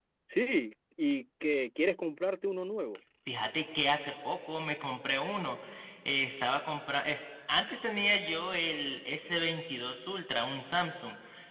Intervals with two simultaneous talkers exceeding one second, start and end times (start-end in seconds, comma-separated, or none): none